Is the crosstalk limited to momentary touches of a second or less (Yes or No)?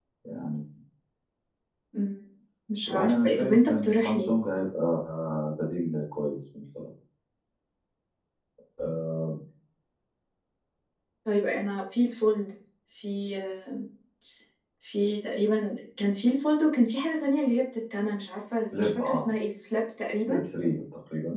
No